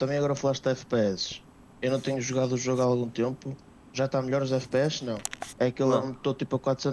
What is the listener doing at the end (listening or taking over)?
listening